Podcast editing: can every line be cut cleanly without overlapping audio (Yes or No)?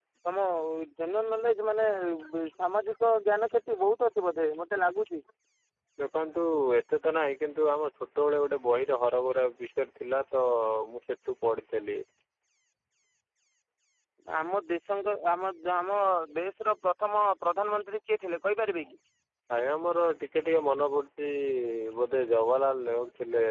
Yes